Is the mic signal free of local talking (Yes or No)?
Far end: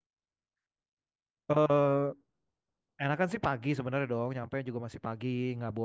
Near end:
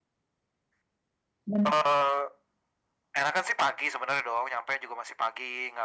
No